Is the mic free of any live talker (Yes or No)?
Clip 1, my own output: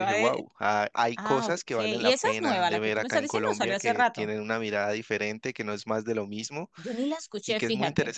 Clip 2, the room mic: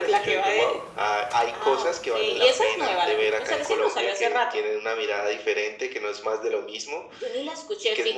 Yes